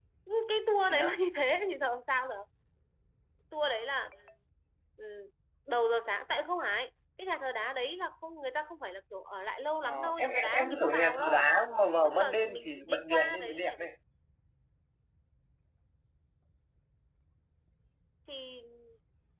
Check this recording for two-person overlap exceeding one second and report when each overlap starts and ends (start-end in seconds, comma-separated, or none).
9.8-11.4, 12.0-13.9